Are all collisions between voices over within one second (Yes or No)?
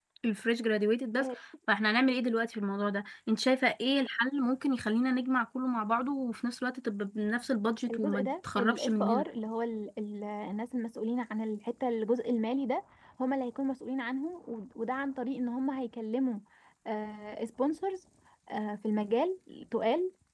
No